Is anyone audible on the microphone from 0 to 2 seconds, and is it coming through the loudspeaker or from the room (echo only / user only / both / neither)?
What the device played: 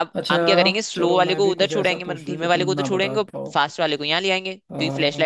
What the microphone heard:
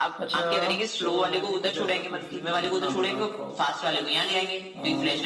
echo only